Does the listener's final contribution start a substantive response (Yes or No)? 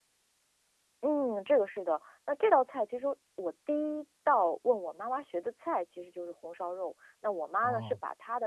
No